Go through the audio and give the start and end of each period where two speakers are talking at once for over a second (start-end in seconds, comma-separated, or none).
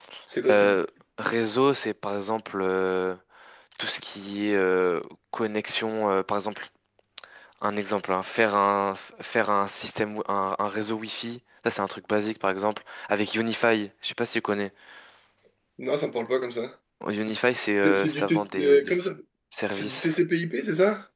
17.8-19.1